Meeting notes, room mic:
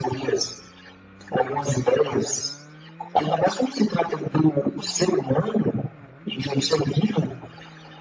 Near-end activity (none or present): none